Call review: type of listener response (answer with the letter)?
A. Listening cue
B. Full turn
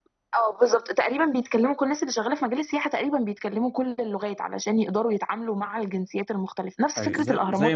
B